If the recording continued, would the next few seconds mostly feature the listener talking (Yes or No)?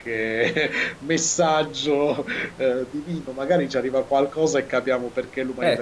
Yes